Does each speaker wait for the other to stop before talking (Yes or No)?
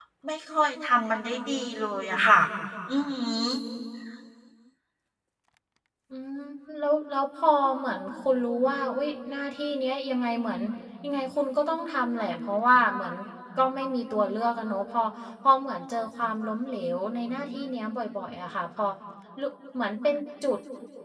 Yes